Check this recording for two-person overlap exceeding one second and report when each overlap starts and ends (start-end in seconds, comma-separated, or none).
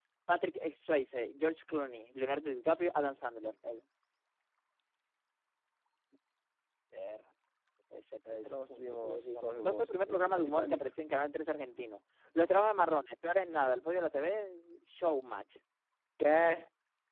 8.5-10.8